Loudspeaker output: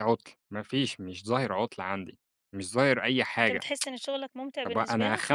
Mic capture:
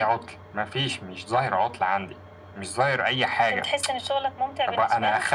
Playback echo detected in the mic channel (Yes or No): Yes